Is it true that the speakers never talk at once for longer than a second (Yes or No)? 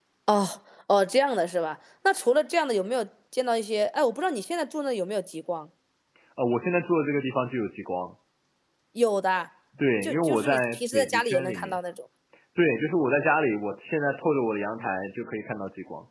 No